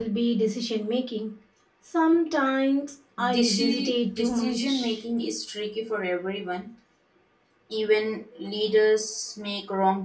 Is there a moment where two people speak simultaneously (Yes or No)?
Yes